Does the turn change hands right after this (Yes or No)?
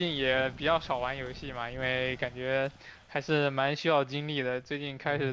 No